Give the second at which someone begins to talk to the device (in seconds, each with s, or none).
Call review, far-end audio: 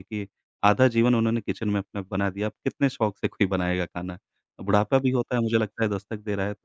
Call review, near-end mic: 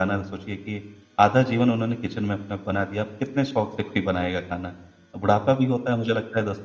none